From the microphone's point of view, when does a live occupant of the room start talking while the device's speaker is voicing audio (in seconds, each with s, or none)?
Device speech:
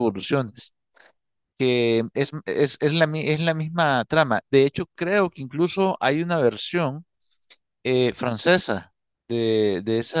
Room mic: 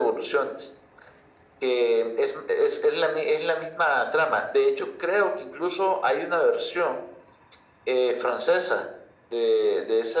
none